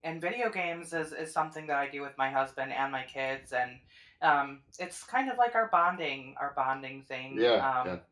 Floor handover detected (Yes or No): No